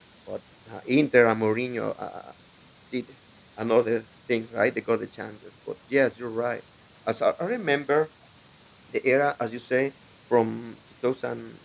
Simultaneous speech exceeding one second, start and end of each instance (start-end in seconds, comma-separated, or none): none